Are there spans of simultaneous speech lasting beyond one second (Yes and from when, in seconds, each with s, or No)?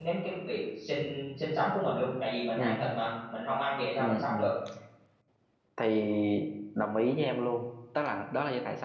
No